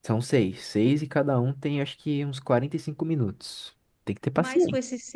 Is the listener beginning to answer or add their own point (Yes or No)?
Yes